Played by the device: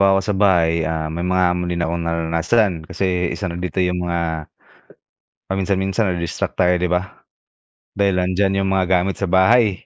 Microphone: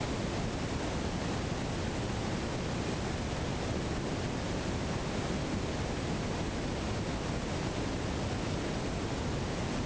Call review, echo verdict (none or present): none